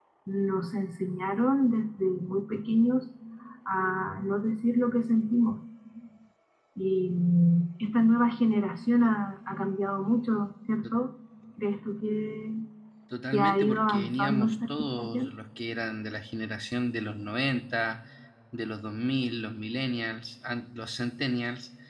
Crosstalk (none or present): present